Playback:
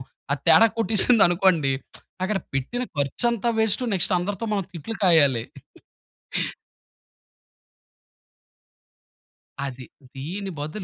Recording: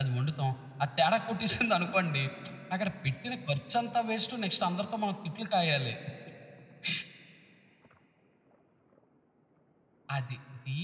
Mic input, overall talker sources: echo only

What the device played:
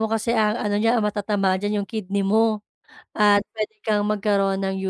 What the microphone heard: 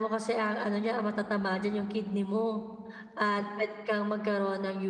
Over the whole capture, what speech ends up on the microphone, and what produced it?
echo only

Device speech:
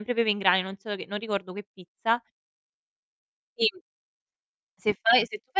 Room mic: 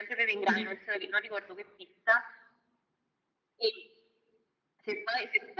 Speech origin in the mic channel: both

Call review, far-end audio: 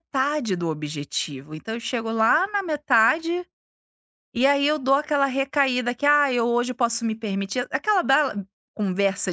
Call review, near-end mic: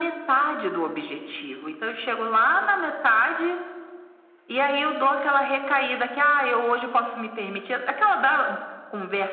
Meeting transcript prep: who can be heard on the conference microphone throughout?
echo only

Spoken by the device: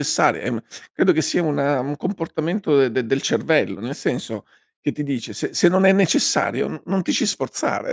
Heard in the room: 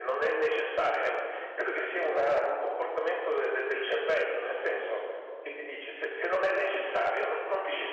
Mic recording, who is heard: echo only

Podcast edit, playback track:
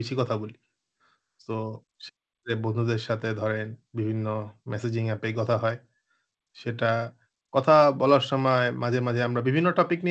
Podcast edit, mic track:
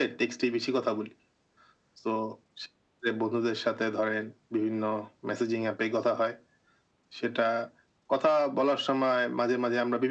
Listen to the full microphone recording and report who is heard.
echo only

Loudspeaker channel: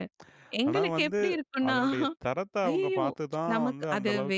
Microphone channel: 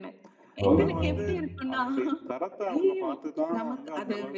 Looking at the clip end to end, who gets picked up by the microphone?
both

